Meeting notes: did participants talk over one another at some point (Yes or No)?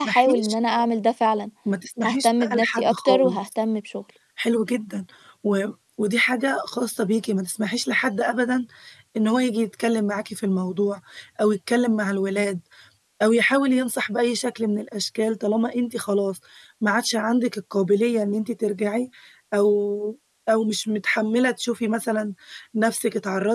Yes